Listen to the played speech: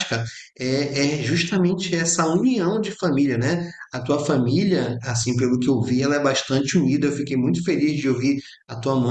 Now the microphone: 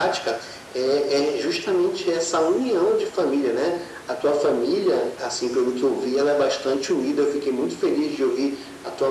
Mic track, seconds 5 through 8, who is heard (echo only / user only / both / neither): echo only